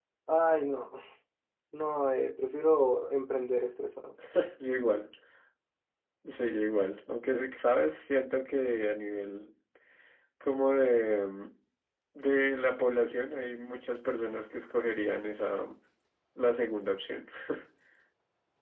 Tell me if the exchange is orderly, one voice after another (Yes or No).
Yes